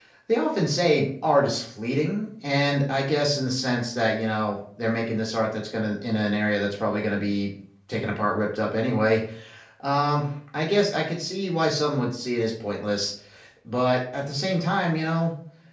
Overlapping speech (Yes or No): No